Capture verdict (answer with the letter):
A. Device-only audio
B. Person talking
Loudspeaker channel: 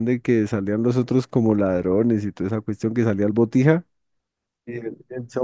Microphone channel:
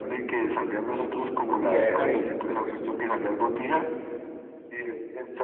B